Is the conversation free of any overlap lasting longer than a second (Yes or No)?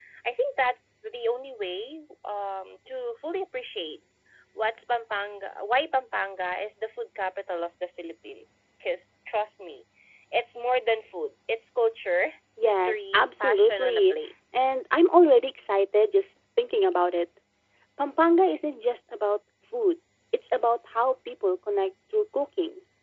No